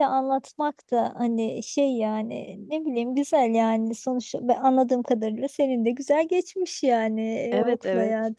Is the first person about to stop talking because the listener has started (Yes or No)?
Yes